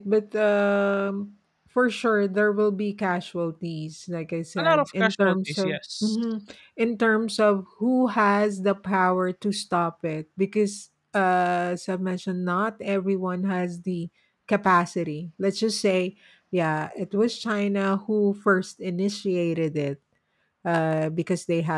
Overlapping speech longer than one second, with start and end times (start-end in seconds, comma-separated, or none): 4.6-6.2